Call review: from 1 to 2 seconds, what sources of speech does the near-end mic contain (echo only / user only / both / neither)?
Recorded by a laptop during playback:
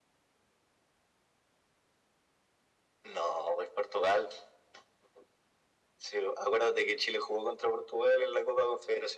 neither